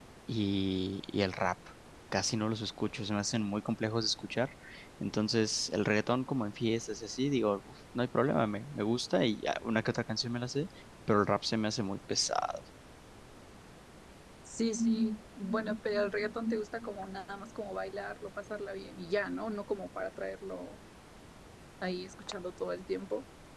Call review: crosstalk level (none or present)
none